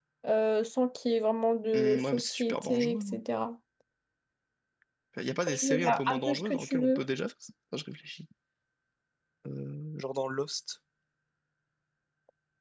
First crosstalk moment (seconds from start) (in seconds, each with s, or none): 1.7 s